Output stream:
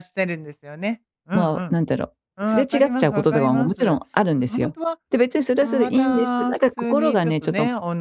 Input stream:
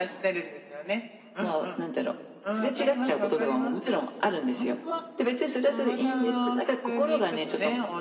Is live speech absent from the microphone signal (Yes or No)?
Yes